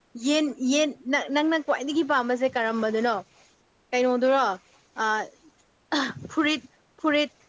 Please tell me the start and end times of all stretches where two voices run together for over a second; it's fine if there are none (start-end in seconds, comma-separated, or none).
none